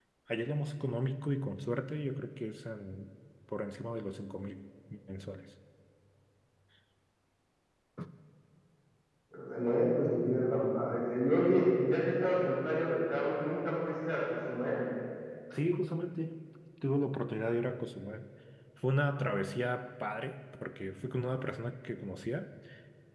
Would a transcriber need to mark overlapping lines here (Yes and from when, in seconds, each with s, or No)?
No